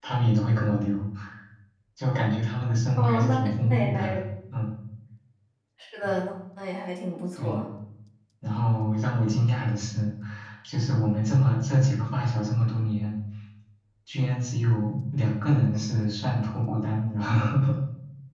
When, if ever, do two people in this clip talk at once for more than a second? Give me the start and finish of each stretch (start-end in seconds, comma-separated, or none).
3.0-4.2